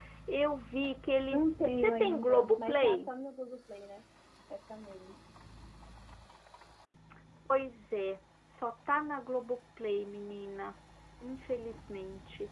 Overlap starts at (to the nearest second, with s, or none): 1 s